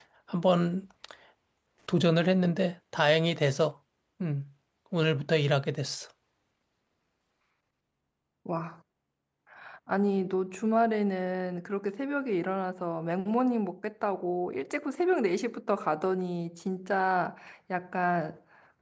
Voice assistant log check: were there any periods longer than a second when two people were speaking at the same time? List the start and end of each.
none

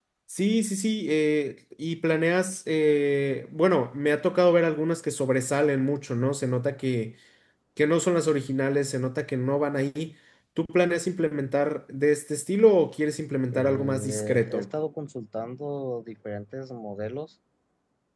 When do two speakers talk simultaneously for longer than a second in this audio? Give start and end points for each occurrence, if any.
13.5-14.7

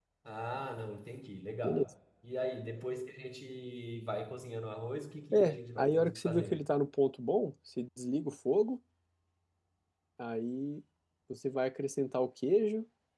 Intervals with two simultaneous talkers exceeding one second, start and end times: 5.3-6.6

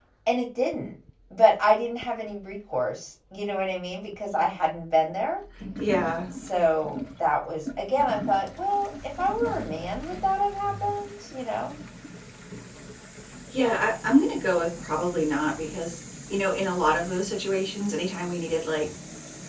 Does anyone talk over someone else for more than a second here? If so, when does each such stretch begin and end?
none

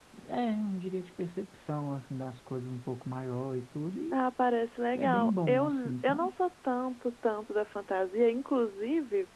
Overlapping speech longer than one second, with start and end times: 4.9-6.3

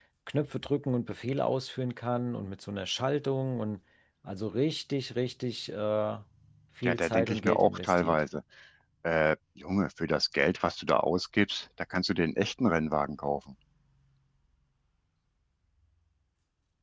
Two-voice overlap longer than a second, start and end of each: 6.8-8.2

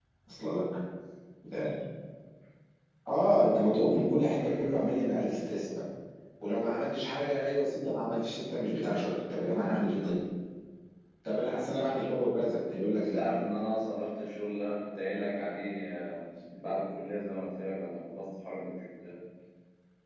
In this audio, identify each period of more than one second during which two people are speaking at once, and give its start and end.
none

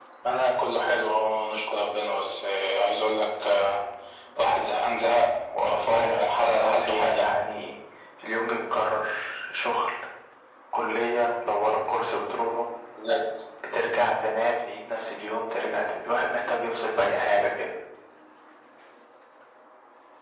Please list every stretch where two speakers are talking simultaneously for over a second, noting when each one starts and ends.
5.7-7.3

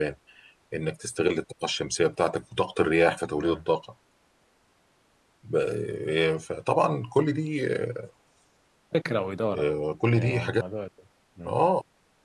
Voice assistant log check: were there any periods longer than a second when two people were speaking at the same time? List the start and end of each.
none

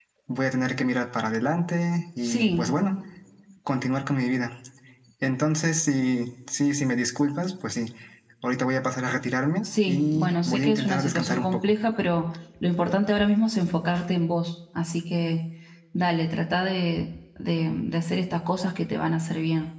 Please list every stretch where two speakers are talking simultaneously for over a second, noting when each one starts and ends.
9.8-11.5

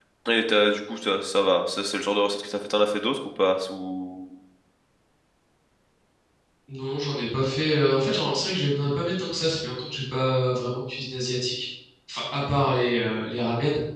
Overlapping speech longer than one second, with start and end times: none

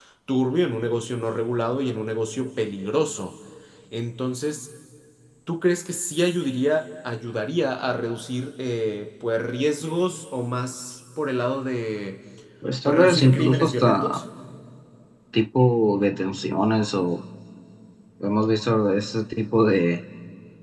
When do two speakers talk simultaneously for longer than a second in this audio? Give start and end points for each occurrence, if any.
12.8-14.2

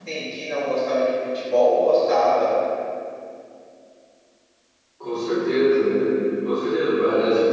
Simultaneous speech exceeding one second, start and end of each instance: none

